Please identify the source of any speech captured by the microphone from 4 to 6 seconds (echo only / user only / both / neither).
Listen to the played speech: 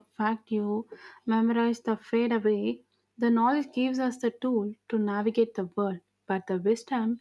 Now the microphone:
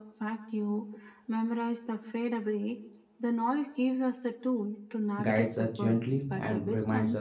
both